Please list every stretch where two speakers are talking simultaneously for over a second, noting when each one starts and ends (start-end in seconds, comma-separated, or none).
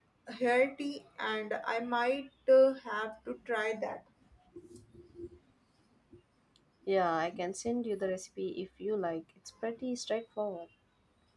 none